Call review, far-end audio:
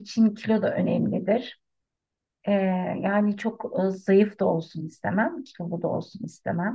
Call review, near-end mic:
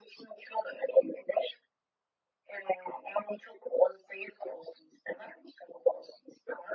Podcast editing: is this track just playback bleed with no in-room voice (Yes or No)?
Yes